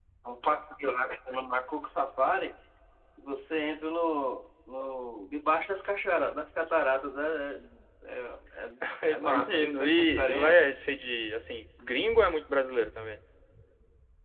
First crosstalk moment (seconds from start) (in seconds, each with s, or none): 9.1 s